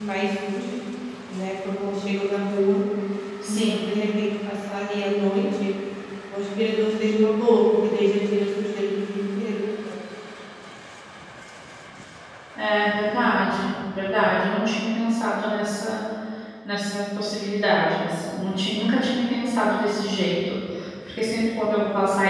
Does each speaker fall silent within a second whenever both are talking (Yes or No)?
Yes